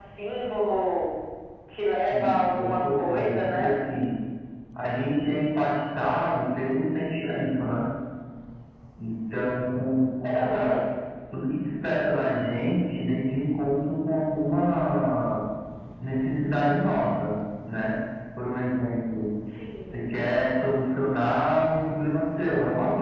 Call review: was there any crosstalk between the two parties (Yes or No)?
Yes